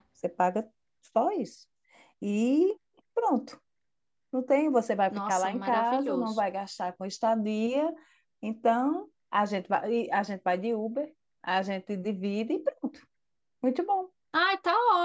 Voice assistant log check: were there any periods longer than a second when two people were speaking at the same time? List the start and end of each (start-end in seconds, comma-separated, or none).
5.1-6.4